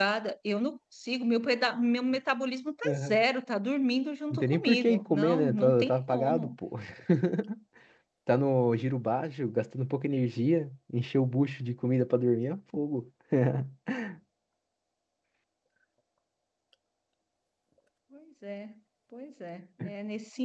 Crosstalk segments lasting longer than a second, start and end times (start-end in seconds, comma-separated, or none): 4.3-6.5